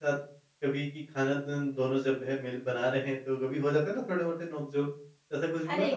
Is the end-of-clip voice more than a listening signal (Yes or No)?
Yes